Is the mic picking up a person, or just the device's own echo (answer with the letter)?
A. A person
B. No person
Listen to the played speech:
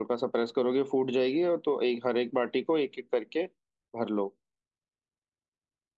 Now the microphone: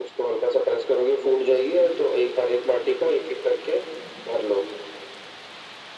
B